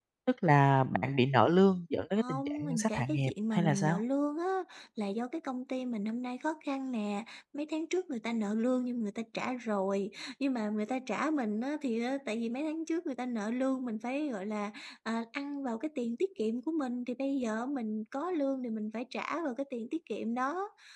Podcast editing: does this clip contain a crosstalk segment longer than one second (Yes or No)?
Yes